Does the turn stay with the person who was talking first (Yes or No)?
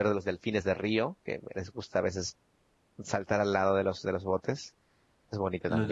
No